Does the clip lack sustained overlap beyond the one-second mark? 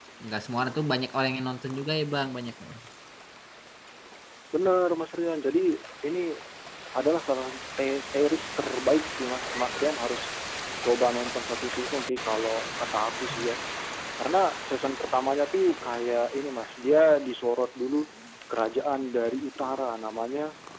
Yes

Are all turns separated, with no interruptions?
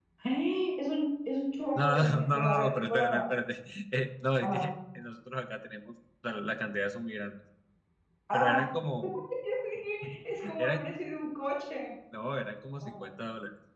No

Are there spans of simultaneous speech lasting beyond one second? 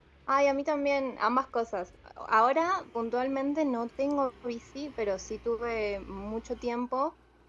No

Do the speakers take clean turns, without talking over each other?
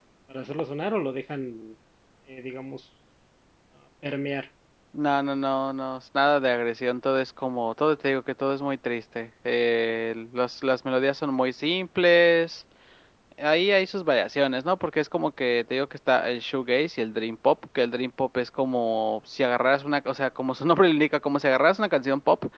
Yes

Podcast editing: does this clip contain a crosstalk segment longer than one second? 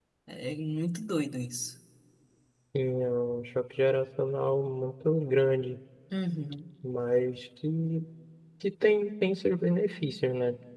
No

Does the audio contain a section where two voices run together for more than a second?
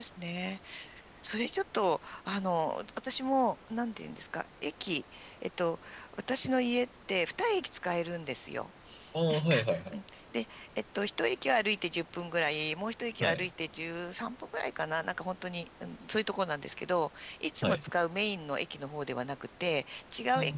No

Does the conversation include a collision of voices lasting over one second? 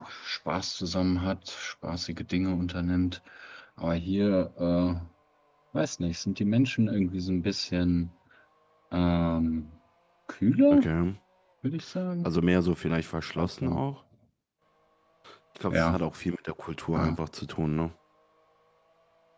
No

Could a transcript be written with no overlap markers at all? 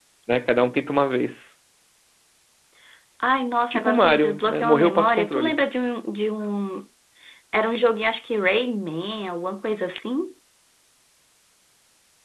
No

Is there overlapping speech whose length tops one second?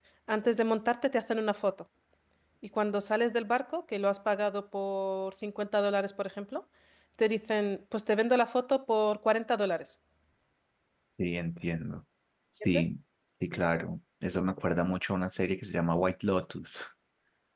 No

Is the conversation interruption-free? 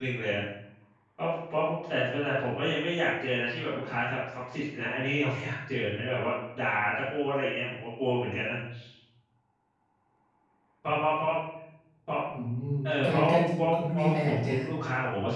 No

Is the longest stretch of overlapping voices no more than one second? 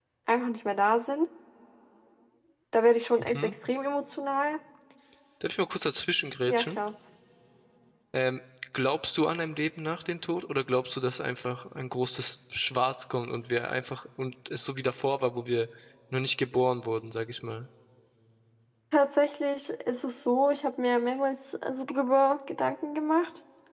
Yes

